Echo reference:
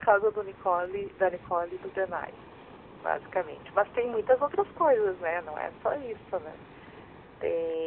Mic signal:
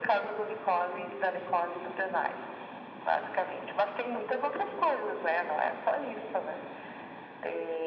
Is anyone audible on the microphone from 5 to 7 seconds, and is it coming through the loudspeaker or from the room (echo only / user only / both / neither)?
echo only